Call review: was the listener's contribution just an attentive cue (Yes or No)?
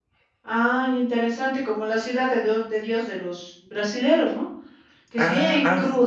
Yes